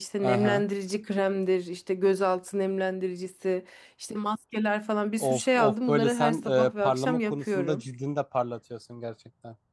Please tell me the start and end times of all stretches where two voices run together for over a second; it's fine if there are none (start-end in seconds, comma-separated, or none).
5.2-7.8